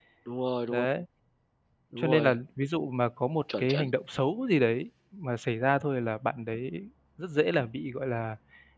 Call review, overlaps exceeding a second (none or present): none